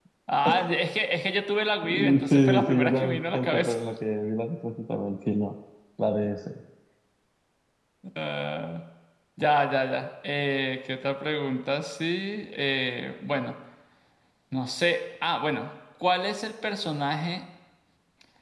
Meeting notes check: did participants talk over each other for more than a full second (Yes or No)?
Yes